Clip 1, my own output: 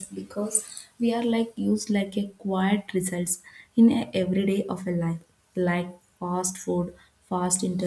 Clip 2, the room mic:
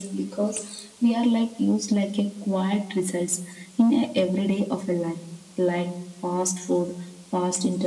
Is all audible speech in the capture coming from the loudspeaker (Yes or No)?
Yes